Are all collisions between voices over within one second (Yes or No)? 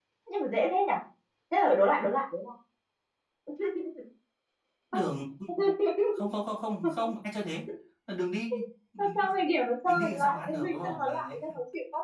No